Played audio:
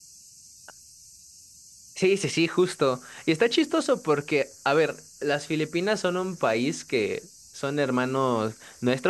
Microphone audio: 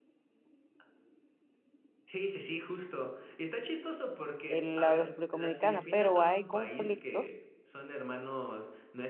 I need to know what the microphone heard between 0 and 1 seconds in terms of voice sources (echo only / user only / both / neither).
neither